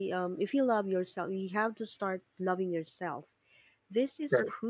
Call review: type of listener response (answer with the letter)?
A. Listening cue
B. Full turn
A